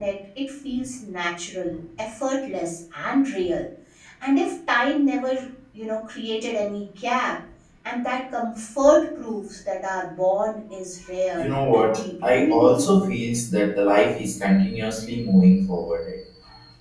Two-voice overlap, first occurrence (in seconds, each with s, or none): 11.3 s